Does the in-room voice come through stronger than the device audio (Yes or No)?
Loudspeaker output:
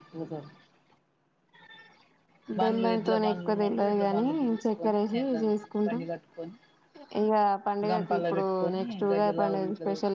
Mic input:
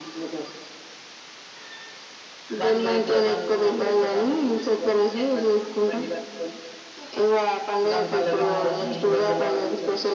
No